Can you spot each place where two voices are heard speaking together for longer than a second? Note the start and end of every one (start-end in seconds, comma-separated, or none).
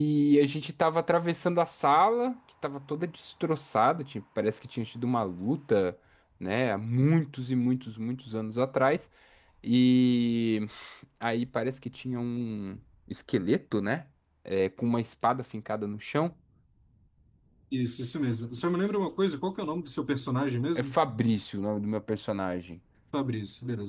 none